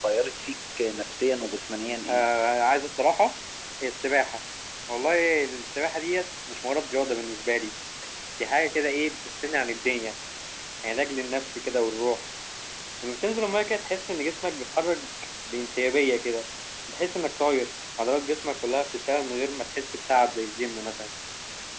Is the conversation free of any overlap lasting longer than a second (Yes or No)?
Yes